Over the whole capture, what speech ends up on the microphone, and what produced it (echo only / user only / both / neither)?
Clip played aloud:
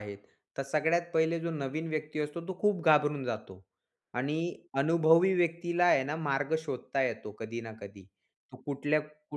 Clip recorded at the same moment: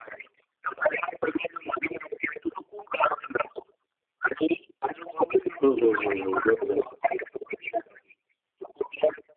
both